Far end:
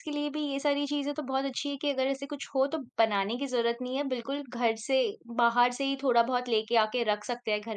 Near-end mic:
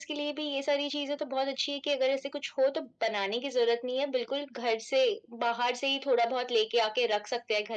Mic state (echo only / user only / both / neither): echo only